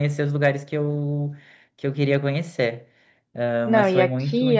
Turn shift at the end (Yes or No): Yes